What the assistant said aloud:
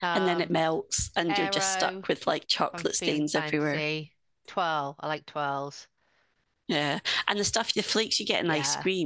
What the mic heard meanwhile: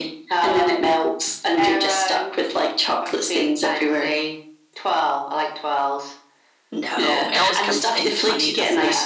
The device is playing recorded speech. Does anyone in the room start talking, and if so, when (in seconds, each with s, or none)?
6.7 s